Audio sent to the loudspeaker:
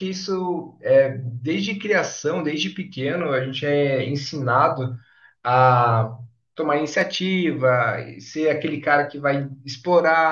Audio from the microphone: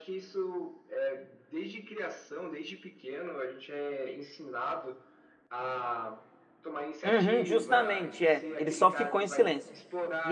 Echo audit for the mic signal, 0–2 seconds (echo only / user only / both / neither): echo only